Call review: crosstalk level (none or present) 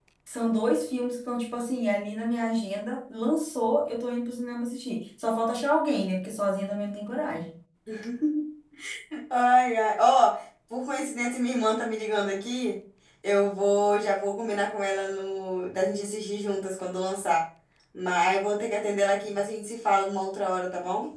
none